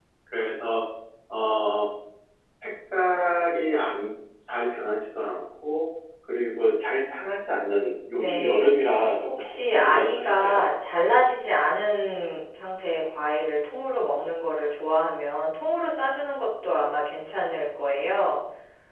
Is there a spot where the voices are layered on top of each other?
Yes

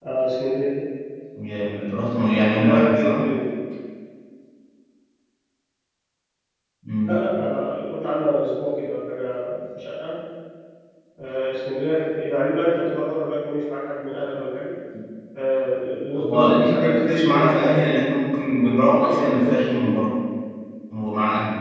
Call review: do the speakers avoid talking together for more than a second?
No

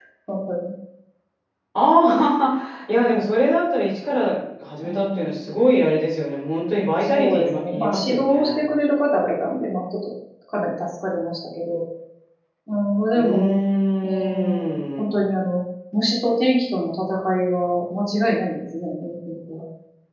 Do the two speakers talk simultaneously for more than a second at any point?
Yes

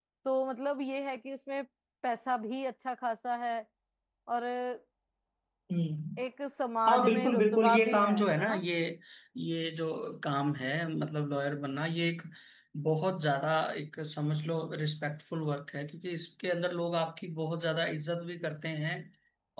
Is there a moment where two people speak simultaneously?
Yes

